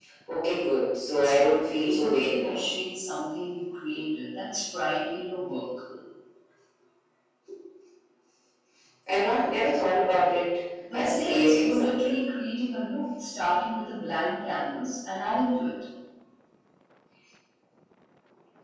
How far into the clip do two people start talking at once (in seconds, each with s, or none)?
1.1 s